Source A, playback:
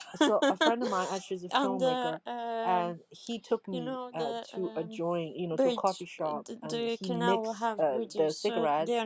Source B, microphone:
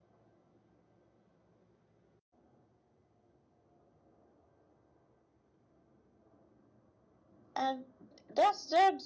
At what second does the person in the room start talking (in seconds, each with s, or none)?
7.6 s